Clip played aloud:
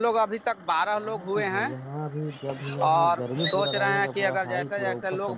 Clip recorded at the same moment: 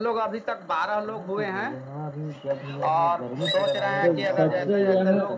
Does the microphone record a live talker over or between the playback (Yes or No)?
Yes